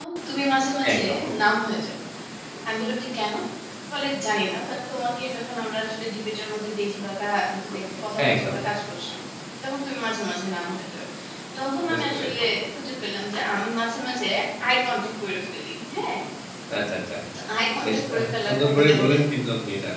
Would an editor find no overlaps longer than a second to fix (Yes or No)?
No